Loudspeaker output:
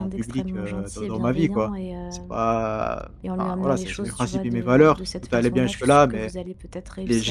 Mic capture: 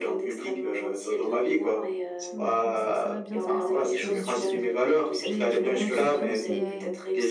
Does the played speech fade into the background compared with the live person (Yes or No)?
No